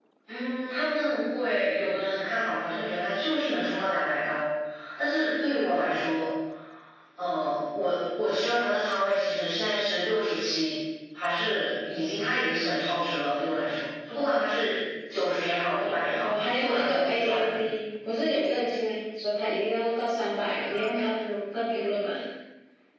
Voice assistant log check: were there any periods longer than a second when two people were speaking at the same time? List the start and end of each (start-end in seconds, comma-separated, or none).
16.2-17.5